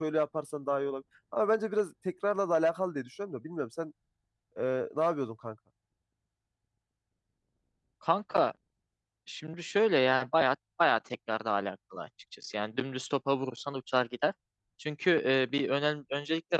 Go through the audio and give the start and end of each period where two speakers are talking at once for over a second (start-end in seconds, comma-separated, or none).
none